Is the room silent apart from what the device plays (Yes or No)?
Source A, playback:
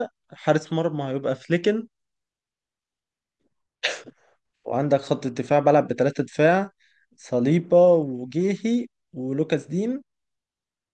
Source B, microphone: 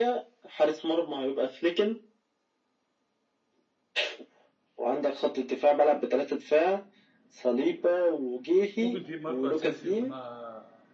No